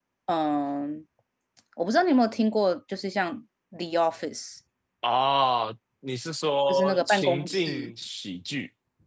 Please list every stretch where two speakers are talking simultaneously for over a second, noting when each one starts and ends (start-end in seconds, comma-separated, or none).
6.7-7.9